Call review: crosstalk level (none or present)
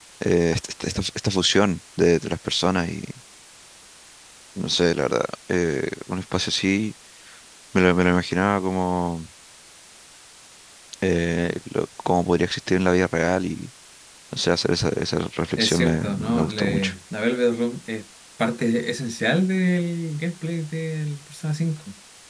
present